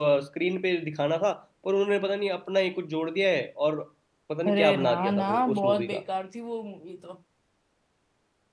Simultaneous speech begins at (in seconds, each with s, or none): 4.5 s